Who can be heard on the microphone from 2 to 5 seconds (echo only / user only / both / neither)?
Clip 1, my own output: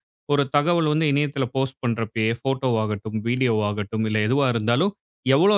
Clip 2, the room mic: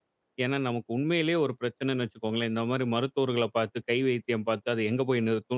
user only